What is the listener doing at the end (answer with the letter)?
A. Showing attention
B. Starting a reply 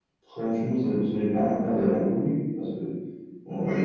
A